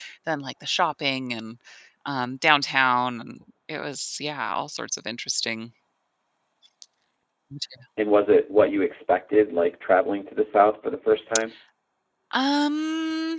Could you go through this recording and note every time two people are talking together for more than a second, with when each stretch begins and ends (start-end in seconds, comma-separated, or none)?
none